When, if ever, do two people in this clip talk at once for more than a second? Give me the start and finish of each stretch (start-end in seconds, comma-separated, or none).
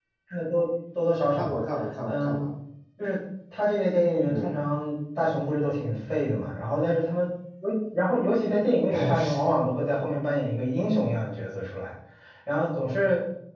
none